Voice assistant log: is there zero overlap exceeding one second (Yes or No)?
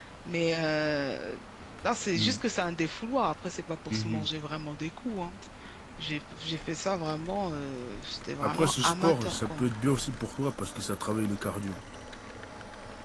No